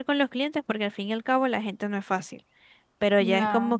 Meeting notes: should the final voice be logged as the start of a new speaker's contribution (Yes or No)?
No